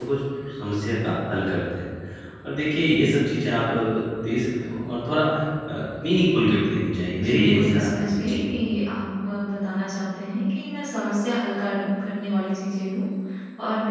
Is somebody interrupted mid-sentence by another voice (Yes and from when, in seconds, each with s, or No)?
Yes, from 7.2 s